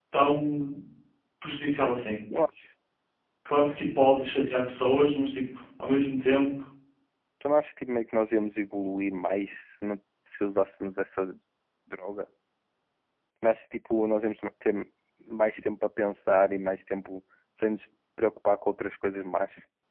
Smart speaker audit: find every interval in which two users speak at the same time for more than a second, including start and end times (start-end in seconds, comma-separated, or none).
none